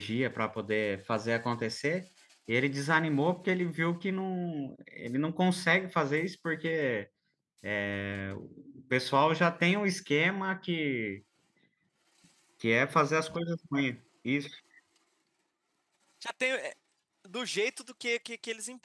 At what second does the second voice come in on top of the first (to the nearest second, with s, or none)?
none